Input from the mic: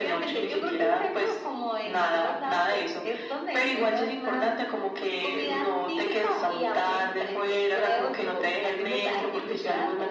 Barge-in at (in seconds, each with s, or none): none